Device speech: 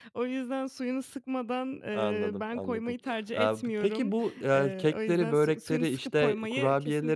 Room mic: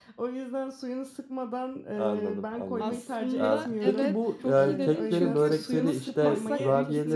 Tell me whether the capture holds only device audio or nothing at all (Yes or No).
No